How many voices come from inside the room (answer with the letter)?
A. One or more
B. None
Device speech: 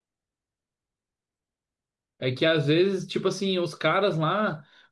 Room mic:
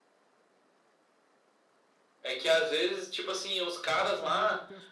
A